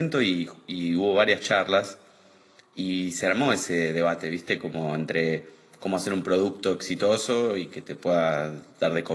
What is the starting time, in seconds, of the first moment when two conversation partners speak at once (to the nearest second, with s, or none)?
none